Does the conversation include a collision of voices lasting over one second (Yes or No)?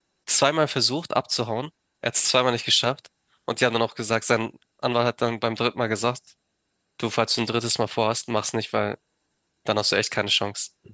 No